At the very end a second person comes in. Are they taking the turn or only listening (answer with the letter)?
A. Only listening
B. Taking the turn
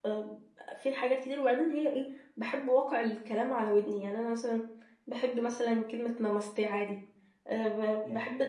A